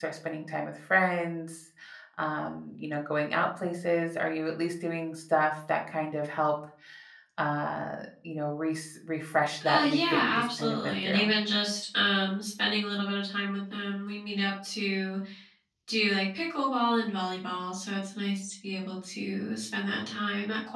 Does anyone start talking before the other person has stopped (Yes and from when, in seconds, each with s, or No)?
Yes, from 9.6 s